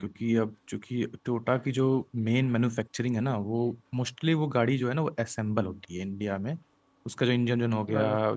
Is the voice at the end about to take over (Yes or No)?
No